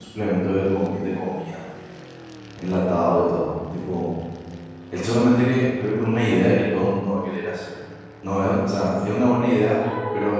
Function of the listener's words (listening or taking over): taking over